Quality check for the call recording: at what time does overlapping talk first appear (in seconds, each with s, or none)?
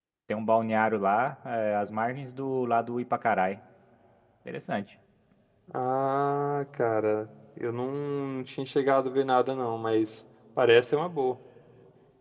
none